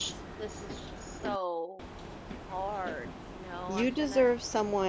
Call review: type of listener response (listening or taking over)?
taking over